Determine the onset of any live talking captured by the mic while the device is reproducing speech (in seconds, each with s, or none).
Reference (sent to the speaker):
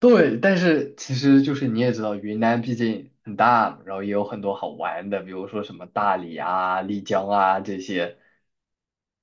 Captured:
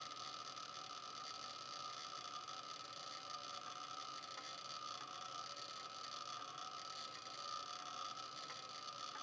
none